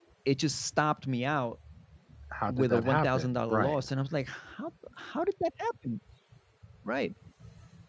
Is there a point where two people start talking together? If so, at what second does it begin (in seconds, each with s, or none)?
2.5 s